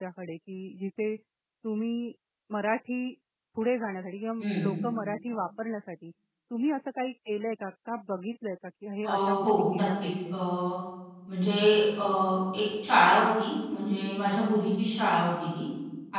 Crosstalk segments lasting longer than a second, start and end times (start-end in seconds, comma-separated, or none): 9.0-10.3